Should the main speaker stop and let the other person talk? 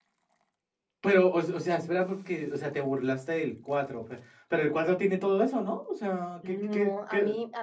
Yes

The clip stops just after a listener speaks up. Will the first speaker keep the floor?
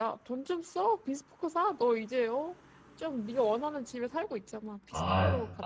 No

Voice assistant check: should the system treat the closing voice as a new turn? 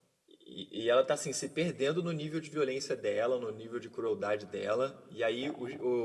No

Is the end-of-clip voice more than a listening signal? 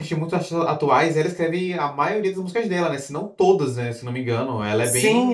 Yes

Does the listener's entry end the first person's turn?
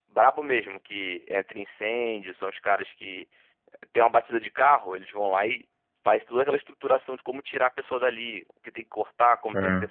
No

